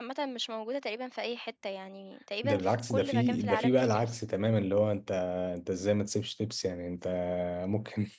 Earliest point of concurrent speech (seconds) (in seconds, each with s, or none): 2.4 s